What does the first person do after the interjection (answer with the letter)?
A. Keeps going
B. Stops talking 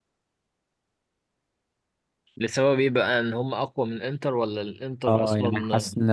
B